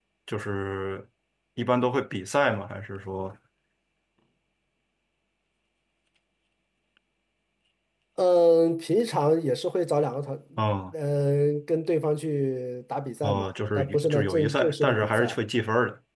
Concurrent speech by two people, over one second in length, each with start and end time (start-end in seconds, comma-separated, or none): 13.2-15.4